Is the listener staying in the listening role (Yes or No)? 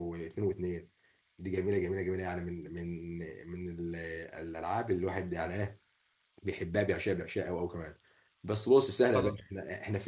Yes